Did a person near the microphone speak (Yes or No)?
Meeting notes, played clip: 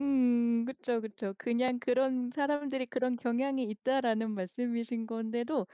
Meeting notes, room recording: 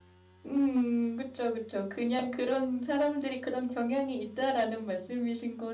No